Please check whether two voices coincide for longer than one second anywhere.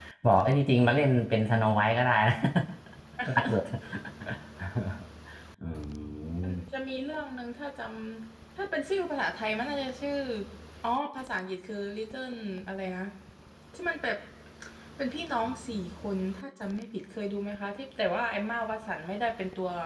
No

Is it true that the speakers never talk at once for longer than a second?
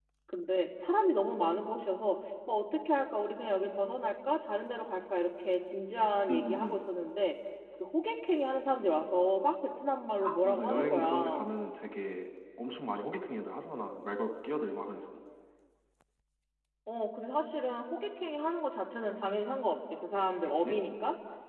No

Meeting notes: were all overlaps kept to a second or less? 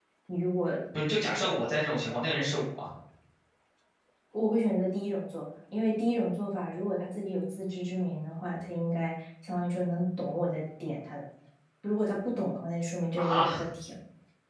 Yes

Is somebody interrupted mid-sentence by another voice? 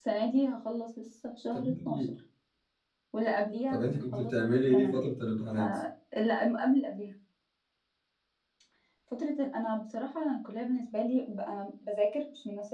Yes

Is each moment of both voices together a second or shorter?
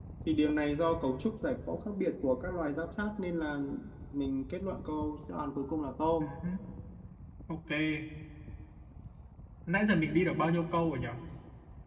Yes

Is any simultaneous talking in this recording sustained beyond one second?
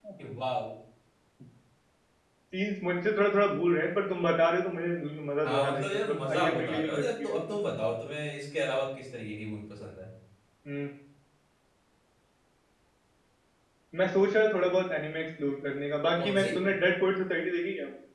Yes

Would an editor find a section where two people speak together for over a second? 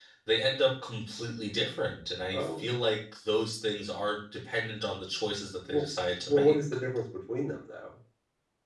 No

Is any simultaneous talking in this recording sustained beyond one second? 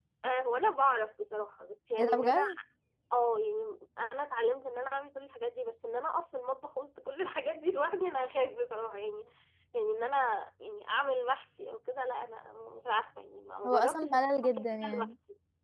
Yes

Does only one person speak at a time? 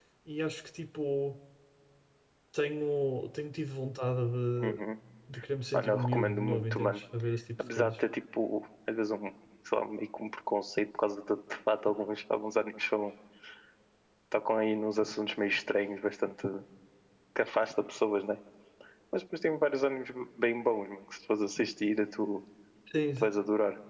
No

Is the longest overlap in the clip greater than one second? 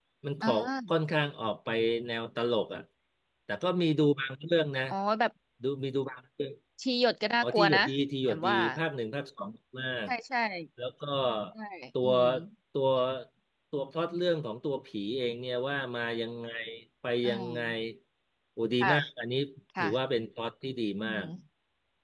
No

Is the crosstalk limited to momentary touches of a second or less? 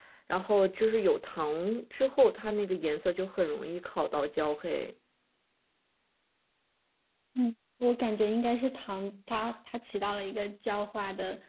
Yes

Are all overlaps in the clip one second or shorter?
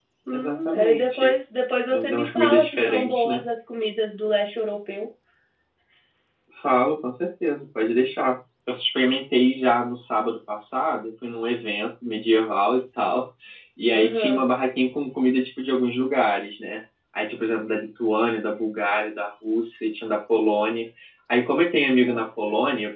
No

